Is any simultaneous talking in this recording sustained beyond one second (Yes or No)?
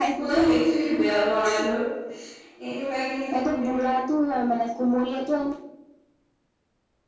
No